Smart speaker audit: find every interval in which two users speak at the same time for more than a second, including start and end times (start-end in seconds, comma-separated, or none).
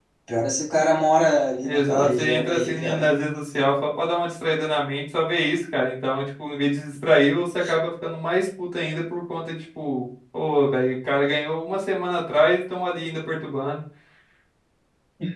1.7-3.2